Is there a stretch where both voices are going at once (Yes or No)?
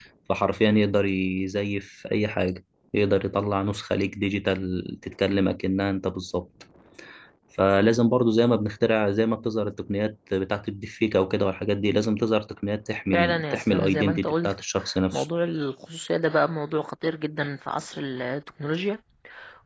Yes